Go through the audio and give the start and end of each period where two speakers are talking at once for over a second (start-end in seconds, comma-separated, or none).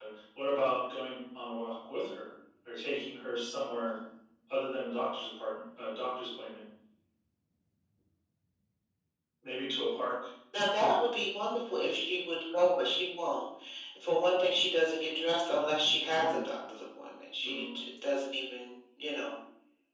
none